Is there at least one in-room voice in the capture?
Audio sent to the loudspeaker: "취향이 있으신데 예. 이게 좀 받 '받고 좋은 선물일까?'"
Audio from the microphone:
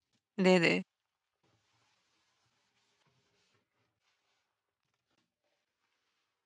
Yes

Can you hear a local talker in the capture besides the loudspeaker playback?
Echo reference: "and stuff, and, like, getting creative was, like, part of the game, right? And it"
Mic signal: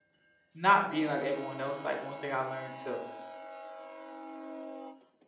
Yes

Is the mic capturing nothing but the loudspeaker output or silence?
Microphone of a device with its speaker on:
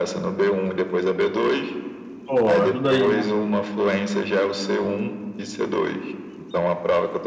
No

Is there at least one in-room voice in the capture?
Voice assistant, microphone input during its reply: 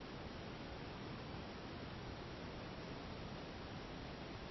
No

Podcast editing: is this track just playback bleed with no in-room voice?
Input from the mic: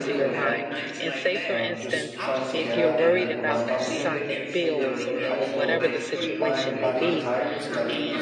No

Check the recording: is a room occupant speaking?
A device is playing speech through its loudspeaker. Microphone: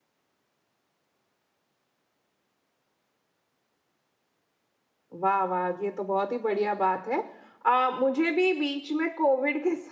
Yes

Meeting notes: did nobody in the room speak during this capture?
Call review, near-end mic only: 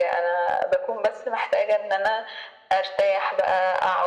Yes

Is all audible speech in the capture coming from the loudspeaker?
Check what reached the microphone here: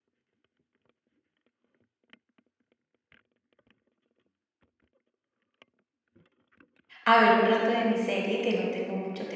No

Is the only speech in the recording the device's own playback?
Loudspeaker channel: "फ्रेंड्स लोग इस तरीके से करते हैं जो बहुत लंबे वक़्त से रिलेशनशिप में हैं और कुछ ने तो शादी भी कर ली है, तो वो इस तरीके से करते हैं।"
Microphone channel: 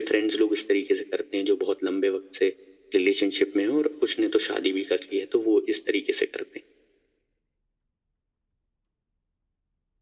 Yes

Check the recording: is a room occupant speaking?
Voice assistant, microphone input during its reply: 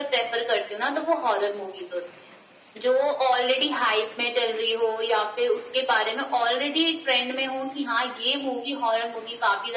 No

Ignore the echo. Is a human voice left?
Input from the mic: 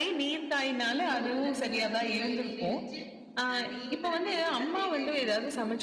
Yes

